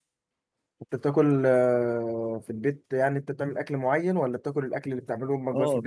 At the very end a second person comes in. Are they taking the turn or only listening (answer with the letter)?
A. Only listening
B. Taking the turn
B